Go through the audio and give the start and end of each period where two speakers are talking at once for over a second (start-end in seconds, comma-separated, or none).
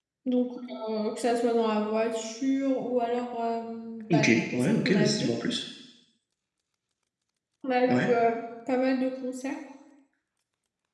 4.1-5.4